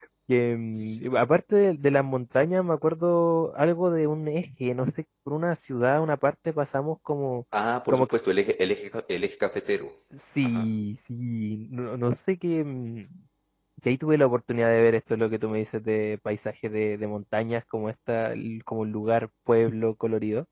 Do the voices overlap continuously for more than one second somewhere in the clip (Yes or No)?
No